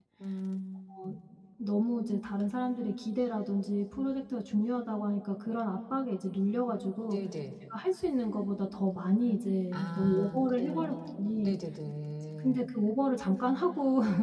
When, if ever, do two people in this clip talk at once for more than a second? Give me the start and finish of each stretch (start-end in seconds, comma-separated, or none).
9.7-11.5